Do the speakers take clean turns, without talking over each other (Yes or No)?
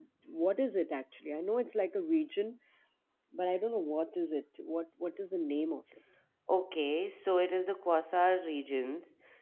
Yes